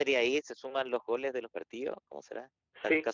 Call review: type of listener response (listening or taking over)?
taking over